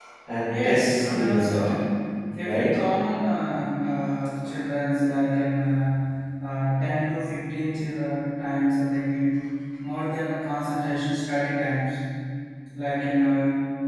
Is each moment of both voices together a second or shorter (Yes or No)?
No